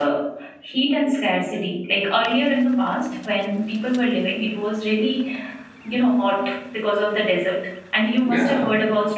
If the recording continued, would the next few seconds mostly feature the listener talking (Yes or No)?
No